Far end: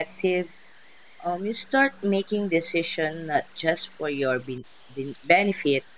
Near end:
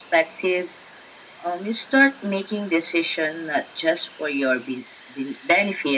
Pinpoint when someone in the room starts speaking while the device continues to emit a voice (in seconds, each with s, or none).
none